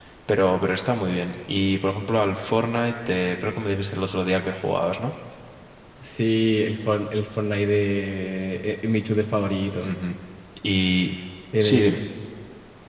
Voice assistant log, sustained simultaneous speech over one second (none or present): none